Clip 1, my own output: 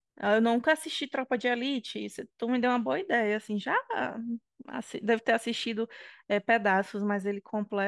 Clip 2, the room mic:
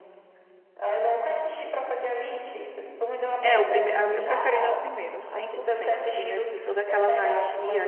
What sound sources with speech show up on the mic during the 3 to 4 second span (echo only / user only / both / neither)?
both